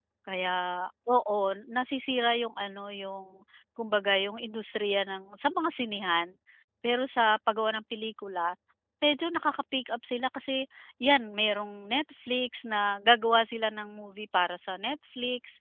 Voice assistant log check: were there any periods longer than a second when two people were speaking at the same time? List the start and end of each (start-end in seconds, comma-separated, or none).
none